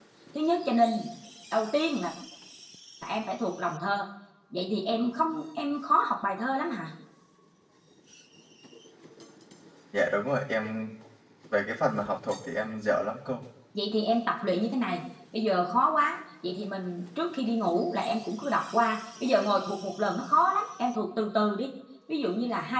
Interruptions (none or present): none